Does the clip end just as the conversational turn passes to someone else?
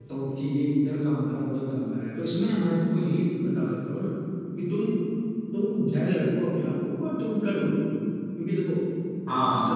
No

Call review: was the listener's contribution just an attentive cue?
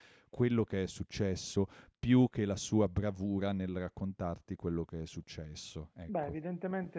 No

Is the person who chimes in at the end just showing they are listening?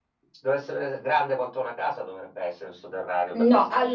No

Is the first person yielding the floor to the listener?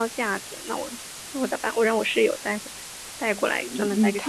Yes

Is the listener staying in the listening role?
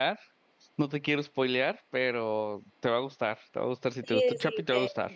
No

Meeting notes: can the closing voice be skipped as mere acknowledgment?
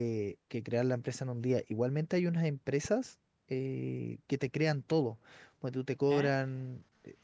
Yes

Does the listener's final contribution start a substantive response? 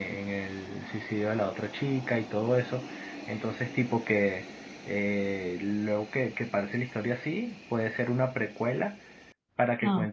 No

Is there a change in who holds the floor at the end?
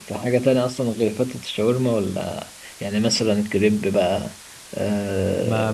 Yes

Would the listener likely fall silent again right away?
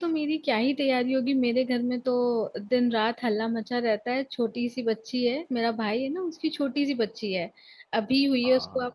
Yes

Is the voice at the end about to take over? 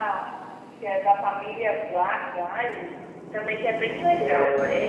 Yes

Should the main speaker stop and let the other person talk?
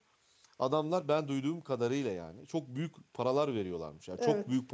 No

